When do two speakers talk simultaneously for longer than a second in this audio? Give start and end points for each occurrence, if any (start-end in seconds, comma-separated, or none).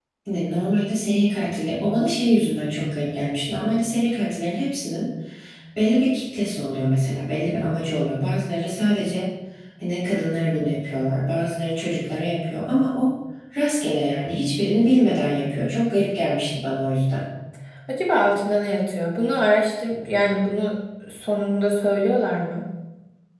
none